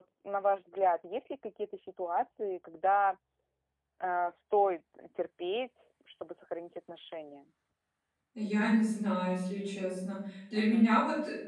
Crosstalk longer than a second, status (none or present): none